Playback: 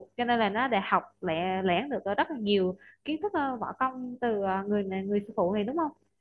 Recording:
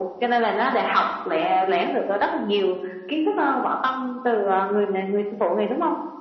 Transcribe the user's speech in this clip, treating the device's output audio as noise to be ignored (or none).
none